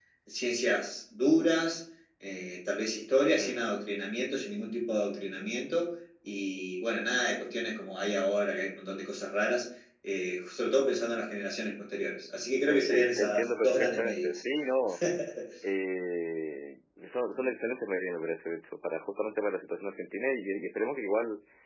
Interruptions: present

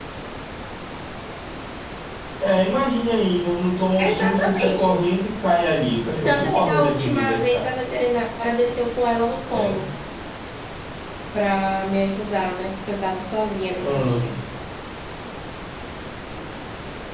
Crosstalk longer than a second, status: present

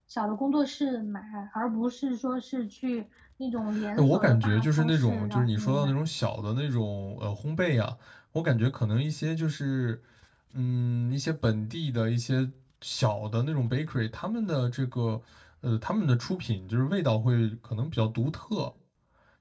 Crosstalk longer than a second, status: present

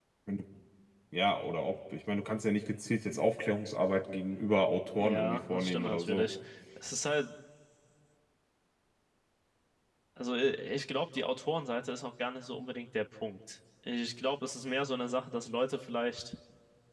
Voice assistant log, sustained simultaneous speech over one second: present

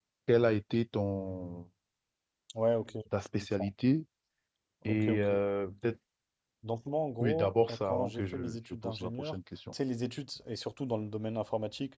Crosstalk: present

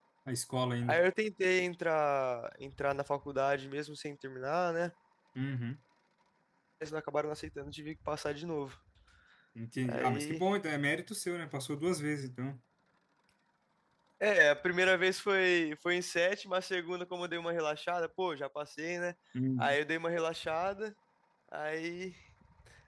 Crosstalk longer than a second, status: none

